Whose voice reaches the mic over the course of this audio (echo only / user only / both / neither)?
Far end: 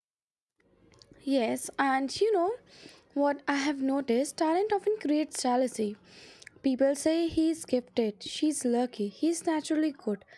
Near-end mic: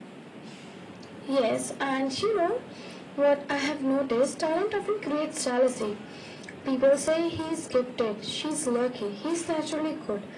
echo only